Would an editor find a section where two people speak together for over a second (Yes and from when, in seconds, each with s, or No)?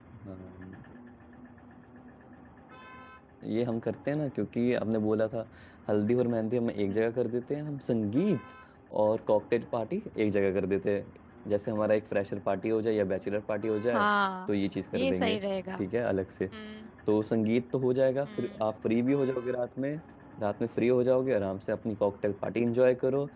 No